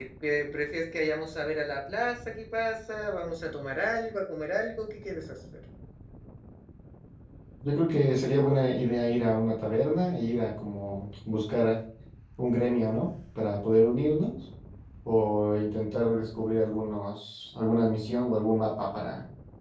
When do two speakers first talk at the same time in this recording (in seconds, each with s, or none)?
none